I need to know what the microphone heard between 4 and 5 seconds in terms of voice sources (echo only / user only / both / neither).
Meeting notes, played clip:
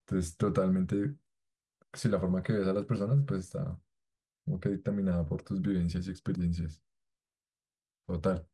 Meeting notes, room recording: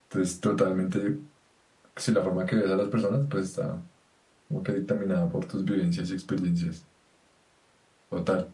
echo only